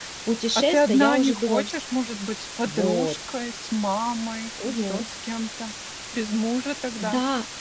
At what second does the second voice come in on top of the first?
0.6 s

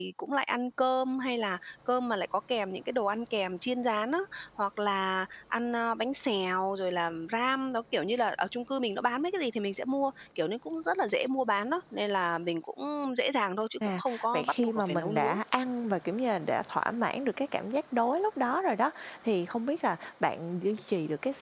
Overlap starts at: 13.8 s

